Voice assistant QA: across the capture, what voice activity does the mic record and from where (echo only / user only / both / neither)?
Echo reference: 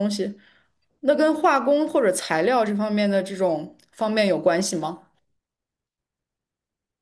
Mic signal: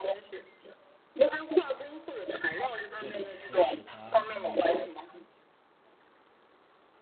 both